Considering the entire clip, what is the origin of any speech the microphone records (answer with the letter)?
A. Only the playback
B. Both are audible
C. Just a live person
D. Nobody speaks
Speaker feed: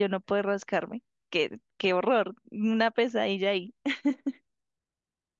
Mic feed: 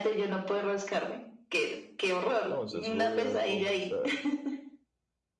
B